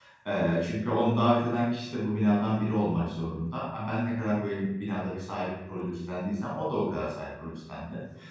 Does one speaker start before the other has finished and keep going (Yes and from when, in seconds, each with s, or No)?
No